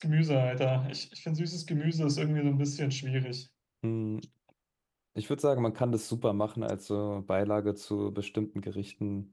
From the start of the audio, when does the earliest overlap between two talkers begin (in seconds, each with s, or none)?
none